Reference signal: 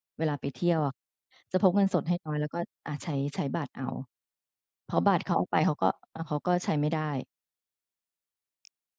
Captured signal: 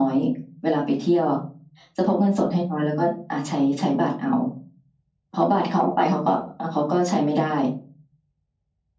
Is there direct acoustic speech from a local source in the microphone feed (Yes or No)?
No